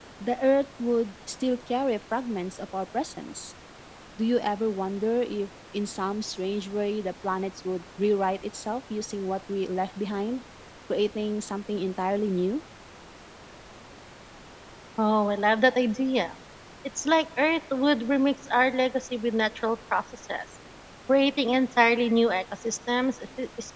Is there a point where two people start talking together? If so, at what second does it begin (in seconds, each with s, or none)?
none